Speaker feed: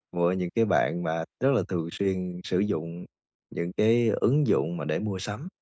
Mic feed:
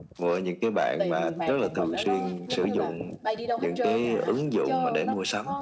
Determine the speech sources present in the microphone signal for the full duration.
both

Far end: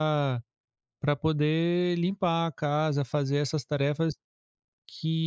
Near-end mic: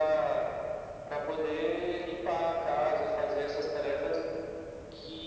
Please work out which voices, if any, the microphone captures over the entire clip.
echo only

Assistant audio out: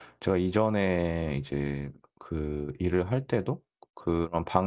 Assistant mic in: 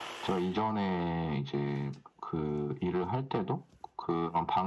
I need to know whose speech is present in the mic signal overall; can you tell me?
echo only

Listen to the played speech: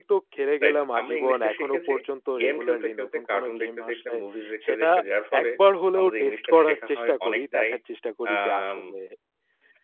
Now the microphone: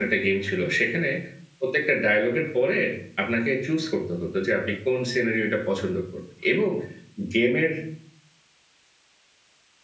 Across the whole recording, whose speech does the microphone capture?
user only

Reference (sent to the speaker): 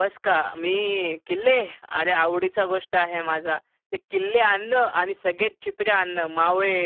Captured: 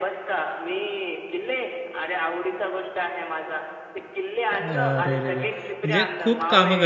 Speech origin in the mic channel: both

